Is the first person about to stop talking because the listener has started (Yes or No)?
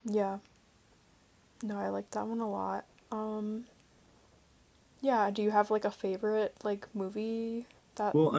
Yes